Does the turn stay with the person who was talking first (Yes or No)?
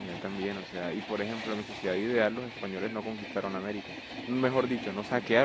Yes